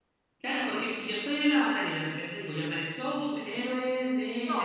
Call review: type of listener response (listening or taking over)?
taking over